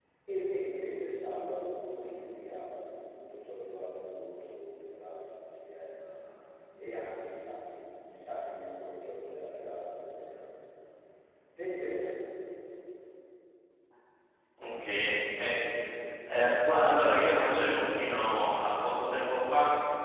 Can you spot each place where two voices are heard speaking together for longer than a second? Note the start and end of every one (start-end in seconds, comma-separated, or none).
none